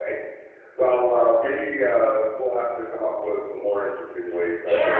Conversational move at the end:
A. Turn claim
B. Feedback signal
A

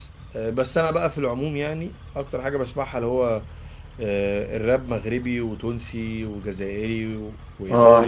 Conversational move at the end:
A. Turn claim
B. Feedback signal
A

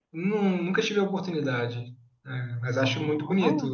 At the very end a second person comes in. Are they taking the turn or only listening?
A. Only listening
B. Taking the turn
A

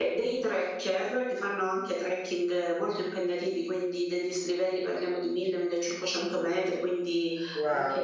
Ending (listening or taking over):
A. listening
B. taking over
A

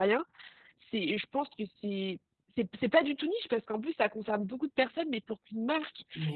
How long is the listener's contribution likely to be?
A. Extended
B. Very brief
B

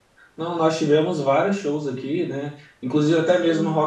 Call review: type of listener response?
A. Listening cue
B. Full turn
A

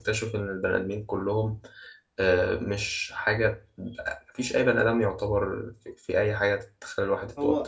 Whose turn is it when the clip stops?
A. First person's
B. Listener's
B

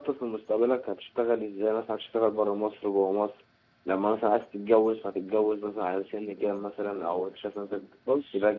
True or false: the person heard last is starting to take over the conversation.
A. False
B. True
B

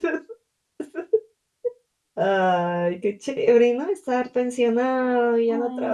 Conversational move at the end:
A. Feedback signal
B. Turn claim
A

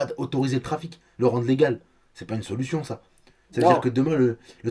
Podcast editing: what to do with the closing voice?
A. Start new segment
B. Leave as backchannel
B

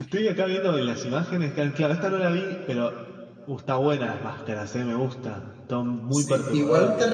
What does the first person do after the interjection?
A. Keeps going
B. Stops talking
B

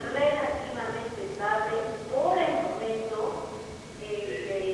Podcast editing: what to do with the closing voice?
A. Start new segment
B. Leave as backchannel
B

